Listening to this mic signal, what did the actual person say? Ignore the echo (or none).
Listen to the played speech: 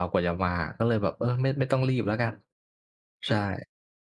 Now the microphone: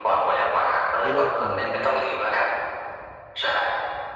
ไม่น่าถึงใช่ไหมครับ?